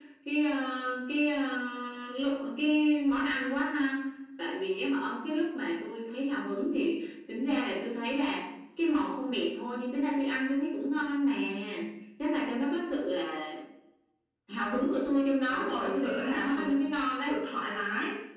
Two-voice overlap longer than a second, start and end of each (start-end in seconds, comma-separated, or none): 15.5-16.8